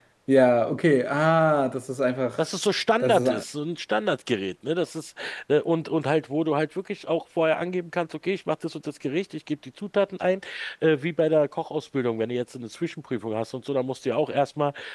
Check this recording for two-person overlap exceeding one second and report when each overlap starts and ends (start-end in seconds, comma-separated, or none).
none